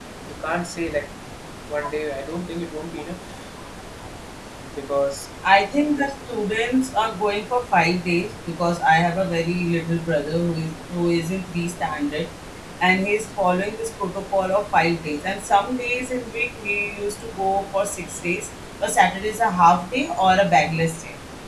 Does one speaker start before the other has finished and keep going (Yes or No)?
No